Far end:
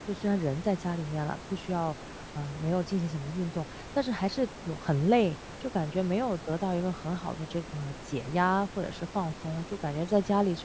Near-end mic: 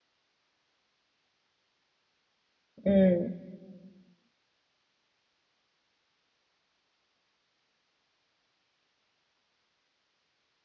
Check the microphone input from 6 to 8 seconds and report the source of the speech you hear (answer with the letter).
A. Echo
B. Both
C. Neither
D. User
C